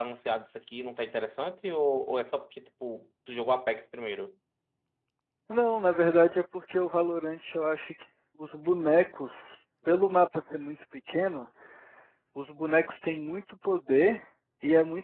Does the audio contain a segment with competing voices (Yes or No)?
No